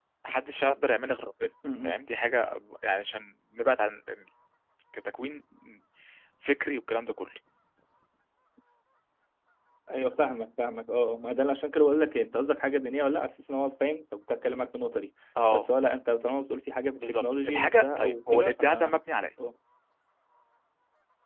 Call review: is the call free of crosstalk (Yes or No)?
No